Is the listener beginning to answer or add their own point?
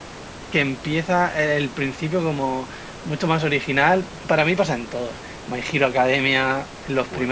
Yes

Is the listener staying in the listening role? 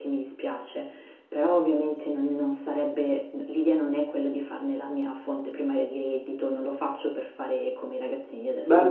No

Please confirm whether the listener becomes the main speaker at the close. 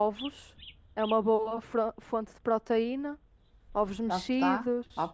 Yes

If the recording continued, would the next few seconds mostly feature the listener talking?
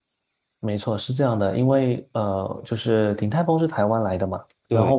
No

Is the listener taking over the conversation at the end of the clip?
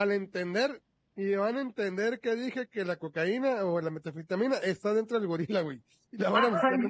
Yes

